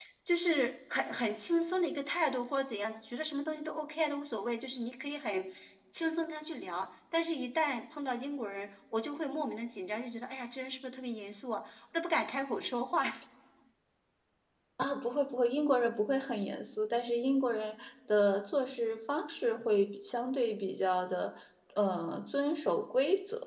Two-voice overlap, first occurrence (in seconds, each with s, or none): none